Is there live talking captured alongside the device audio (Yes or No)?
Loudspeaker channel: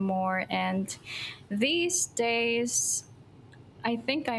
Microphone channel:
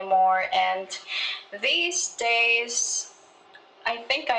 No